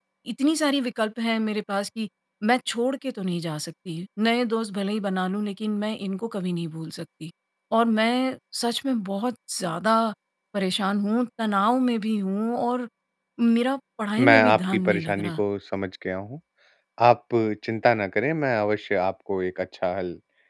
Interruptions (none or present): present